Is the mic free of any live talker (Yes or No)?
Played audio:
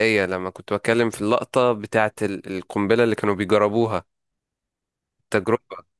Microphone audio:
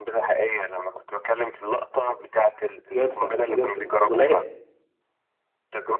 No